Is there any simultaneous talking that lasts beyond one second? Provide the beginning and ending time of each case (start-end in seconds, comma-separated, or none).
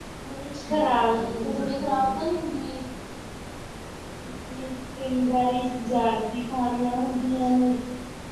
0.5-2.3